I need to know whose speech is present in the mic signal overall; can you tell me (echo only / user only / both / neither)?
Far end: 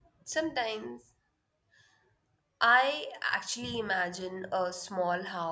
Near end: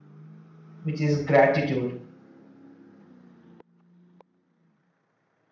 user only